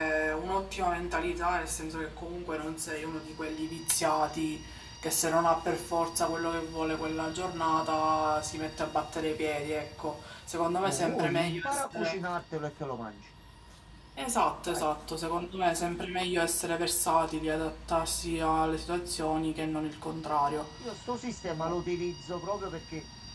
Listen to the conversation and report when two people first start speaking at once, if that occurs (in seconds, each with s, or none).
10.8 s